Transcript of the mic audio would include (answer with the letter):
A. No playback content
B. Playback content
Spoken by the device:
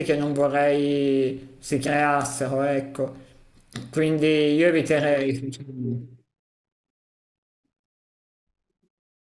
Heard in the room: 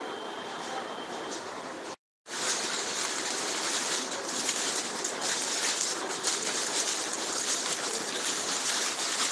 A